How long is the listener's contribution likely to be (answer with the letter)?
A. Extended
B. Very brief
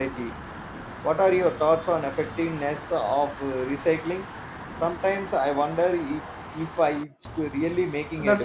A